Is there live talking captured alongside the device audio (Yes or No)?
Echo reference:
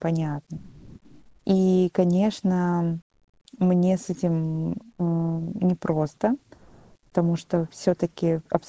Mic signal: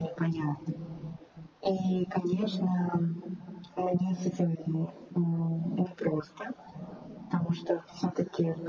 No